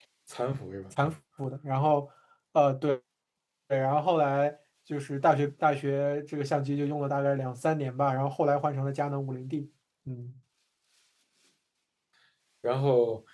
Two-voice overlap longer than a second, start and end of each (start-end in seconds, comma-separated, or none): none